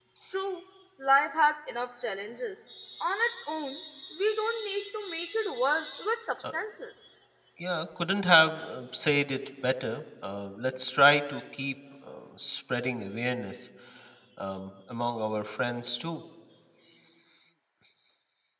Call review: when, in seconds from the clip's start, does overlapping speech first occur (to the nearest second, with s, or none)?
none